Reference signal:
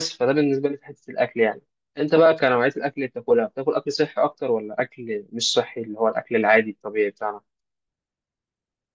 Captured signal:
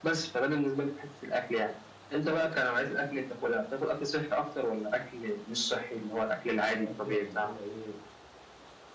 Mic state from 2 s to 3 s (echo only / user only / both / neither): echo only